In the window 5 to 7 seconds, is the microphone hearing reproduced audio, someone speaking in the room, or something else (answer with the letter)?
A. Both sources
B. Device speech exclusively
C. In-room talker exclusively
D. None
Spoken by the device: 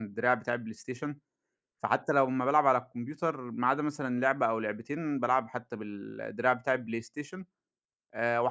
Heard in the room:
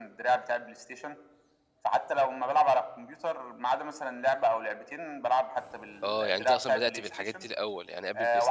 A